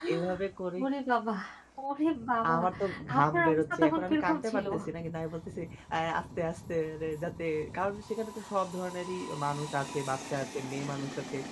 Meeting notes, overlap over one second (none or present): present